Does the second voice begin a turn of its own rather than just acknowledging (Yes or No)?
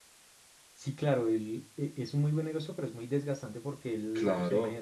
No